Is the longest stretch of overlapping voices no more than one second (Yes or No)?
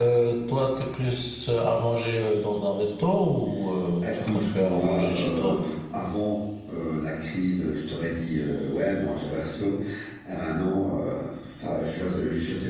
No